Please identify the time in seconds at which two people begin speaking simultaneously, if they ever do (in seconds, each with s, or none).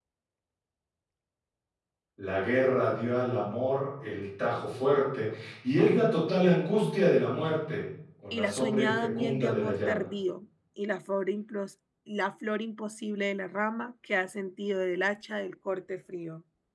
8.3 s